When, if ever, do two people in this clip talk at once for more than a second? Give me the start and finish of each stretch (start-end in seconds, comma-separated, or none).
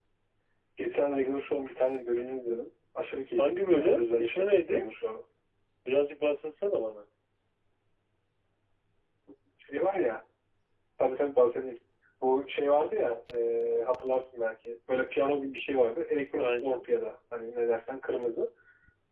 3.4-4.8